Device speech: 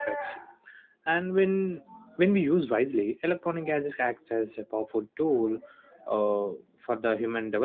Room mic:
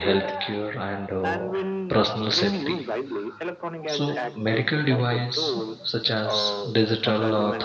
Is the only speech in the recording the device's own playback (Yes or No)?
No